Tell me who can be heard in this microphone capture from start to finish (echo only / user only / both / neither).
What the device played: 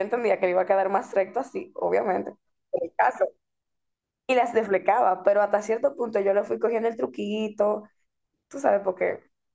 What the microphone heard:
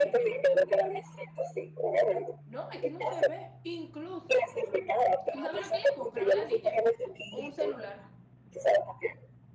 both